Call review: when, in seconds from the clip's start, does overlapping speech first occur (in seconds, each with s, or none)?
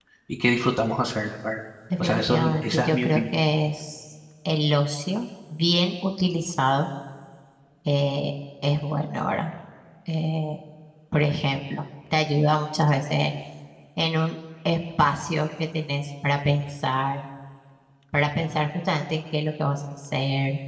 1.9 s